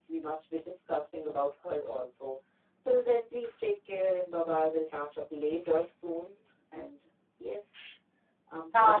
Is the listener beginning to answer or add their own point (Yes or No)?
Yes